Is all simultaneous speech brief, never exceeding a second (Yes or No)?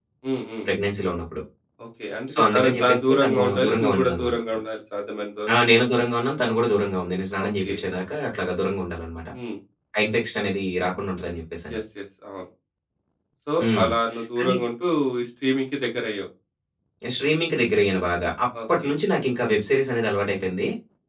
No